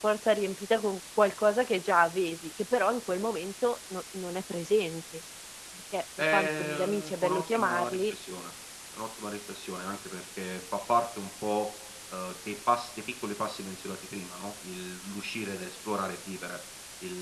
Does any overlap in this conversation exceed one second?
Yes, from 6.3 s

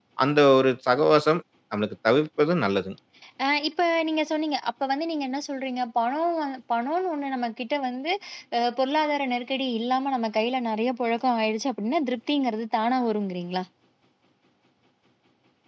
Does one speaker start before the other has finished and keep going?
No

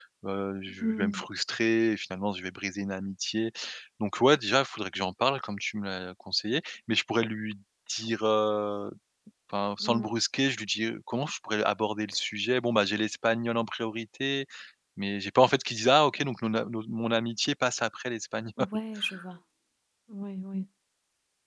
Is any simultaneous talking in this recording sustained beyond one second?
No

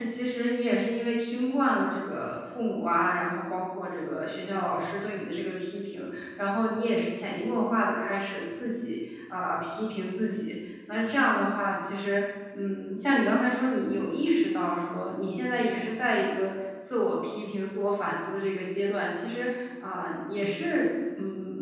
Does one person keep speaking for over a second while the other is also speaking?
No

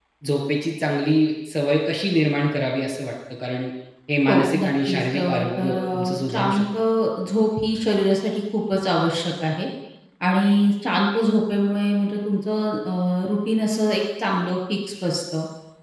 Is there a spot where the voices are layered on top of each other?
Yes, from 4.3 s

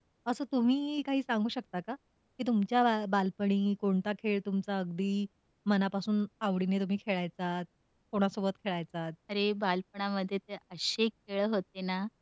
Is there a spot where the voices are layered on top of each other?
No

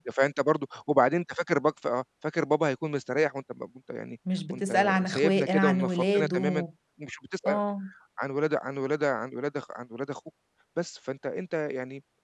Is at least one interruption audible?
Yes, from 4.5 s

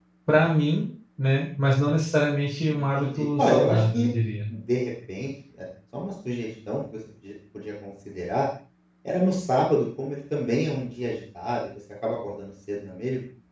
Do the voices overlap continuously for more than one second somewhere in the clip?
Yes, from 2.7 s

